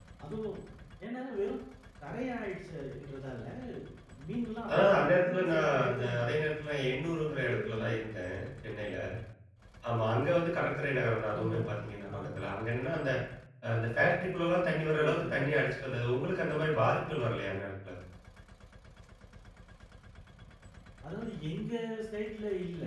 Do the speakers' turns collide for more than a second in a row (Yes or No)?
Yes